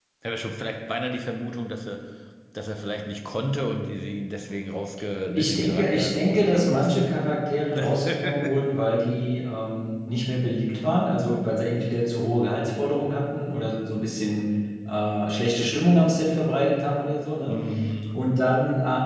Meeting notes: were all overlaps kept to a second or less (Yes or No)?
No